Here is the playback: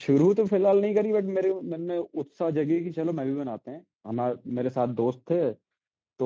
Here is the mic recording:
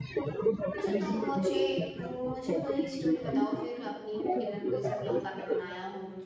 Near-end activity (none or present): present